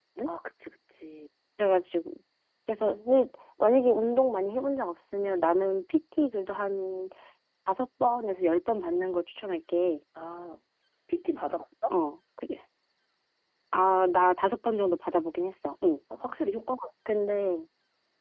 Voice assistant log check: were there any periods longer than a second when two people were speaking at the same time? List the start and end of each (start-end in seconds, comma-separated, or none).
none